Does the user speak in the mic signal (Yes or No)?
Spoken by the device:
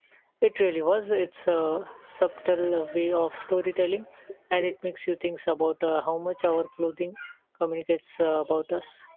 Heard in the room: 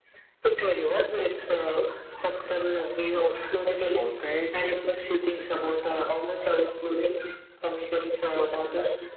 Yes